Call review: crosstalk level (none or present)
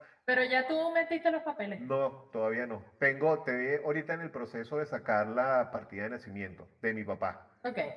none